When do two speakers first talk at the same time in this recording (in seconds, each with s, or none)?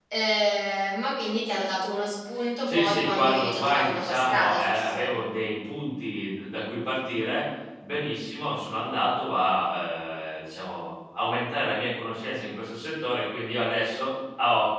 2.6 s